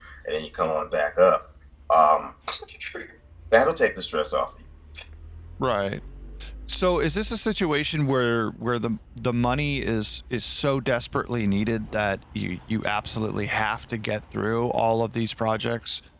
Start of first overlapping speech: none

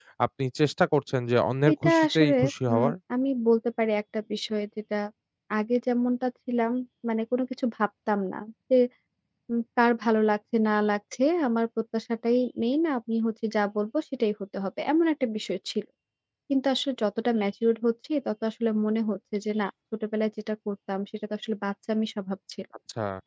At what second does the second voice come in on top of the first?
2 s

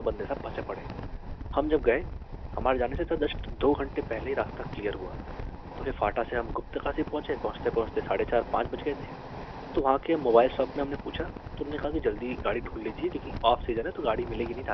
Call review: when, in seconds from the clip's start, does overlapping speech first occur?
none

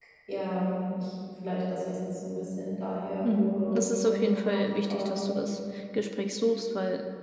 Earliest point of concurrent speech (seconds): 3 s

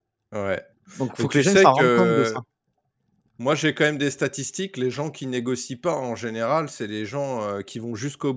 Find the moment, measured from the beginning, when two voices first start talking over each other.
1 s

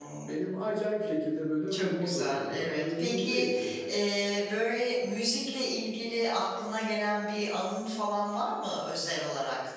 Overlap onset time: 2 s

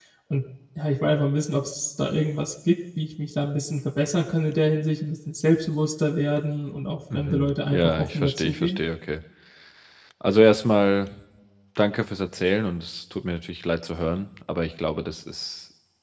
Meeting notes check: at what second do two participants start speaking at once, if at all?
7 s

